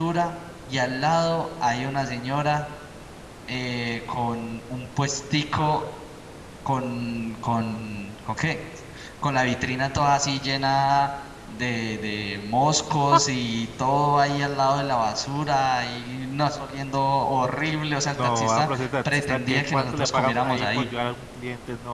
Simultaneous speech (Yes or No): Yes